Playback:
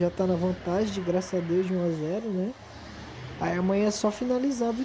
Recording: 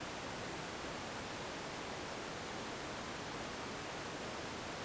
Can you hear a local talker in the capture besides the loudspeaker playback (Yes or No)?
No